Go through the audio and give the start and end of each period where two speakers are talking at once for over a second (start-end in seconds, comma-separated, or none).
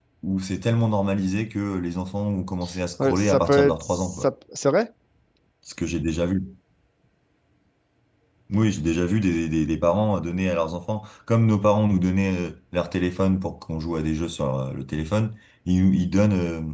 3.0-4.3